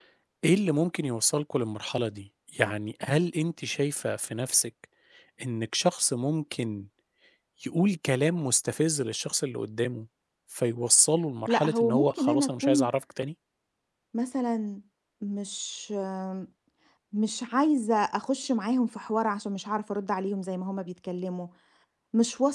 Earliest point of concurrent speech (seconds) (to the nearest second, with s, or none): 11 s